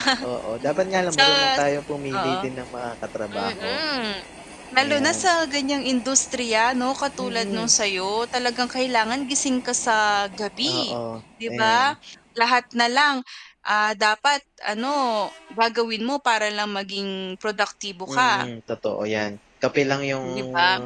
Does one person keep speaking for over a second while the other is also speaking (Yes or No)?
No